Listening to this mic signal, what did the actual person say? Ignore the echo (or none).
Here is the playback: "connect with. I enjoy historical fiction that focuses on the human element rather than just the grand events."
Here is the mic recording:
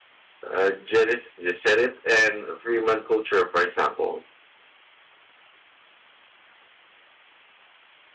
uh, Jeris Gesserit and Freeman culture, for example.